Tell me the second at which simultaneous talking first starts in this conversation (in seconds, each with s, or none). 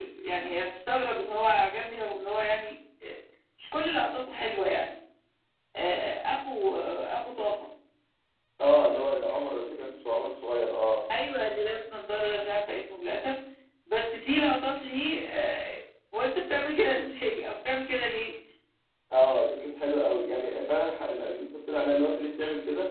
none